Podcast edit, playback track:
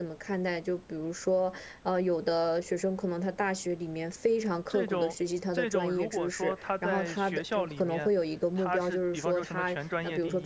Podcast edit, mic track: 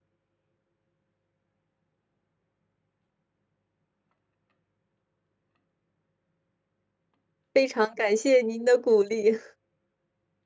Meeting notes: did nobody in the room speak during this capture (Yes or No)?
No